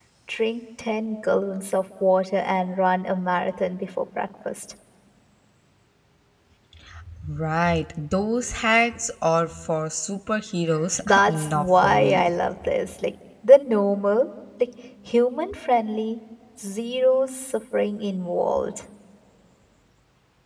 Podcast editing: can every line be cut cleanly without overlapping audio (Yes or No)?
No